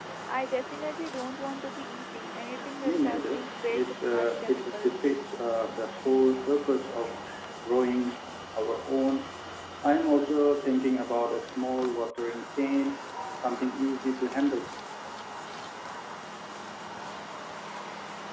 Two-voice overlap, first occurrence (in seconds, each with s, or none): 2.8 s